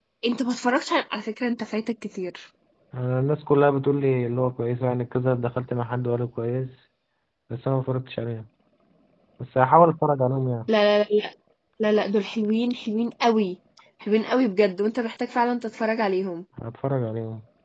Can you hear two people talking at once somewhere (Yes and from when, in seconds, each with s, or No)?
No